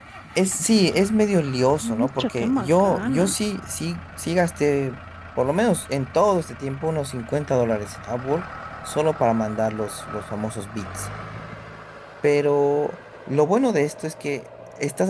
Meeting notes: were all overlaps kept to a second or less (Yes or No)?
No